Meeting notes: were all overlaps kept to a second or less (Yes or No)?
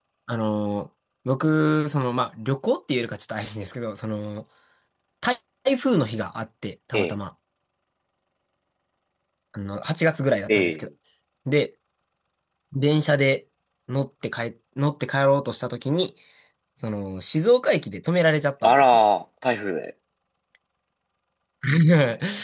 Yes